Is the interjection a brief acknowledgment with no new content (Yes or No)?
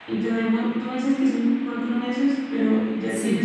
Yes